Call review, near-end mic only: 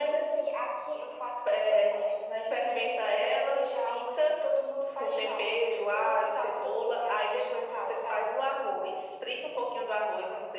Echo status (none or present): present